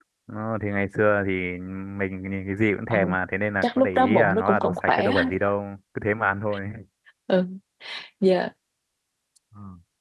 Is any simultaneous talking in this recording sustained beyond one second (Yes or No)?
Yes